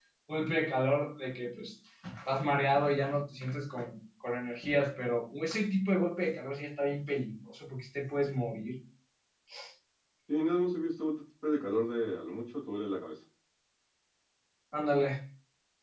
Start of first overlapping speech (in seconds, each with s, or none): none